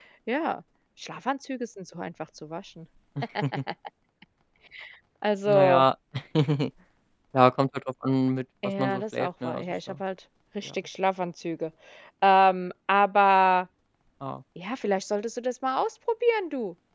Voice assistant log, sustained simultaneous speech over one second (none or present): present